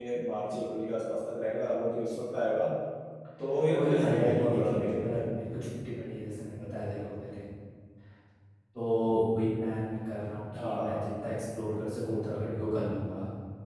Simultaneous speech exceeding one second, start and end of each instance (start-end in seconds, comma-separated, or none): 3.7-5.2